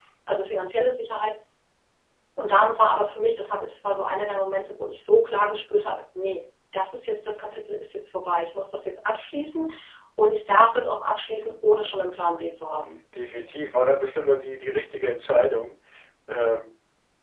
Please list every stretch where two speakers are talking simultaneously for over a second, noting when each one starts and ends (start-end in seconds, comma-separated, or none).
none